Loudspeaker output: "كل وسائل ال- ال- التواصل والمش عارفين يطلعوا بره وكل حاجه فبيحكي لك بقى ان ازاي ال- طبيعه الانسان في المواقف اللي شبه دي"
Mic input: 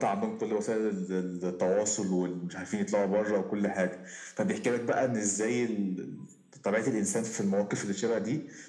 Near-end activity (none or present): none